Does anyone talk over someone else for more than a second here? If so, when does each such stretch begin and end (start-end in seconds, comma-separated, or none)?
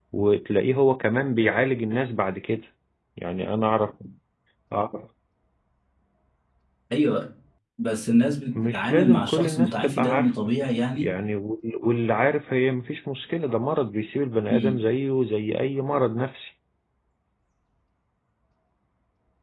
8.6-10.3